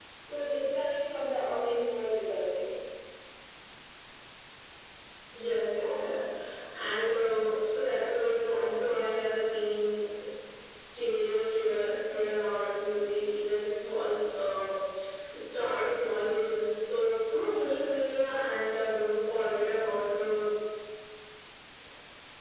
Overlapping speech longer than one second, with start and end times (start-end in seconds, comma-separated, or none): none